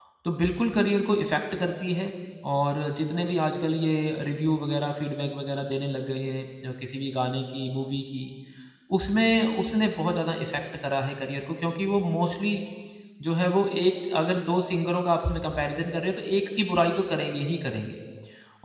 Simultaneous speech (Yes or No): No